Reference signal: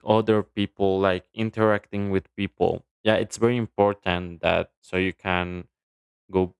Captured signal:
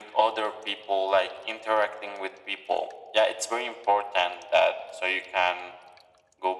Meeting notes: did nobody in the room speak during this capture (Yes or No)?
Yes